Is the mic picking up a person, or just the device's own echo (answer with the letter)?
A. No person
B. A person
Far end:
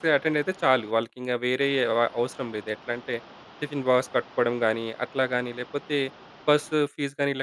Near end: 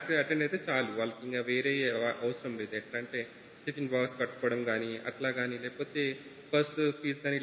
A